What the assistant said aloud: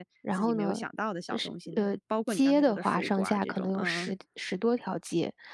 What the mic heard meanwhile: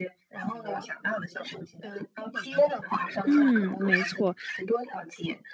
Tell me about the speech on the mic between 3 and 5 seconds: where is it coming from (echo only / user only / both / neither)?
both